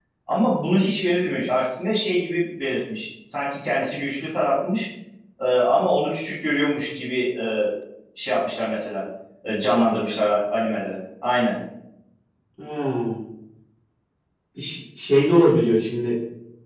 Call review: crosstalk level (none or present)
none